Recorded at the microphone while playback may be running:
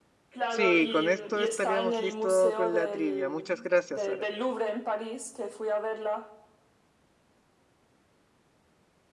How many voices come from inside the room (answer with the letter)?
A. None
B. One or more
B